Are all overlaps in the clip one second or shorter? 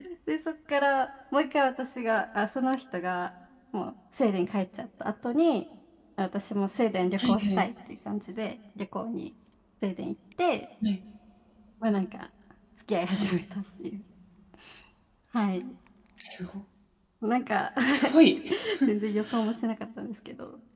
Yes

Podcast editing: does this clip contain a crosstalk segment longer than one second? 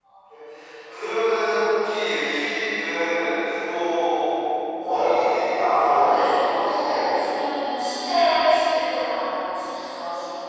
Yes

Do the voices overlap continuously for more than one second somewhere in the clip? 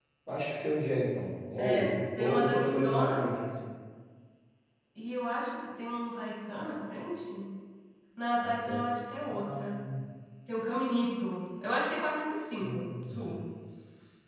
Yes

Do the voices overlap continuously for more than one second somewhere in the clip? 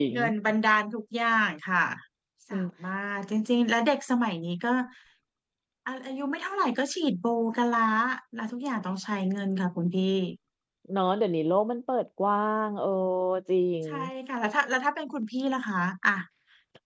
No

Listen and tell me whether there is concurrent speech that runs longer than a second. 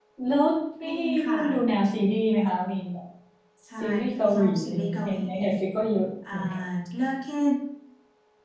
Yes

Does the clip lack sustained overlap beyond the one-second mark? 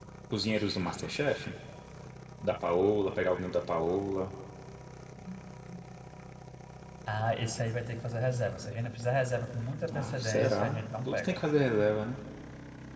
No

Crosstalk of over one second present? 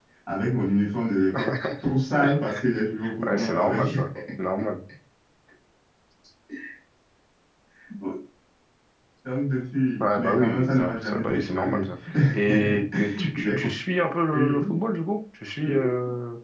Yes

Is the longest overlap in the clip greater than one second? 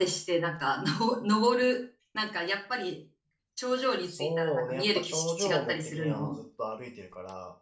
Yes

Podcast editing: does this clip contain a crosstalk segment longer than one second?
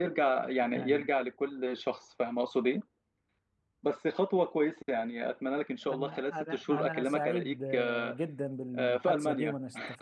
Yes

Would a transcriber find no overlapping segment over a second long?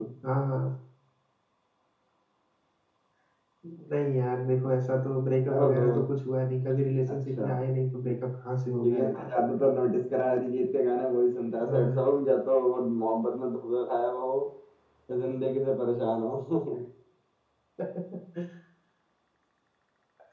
Yes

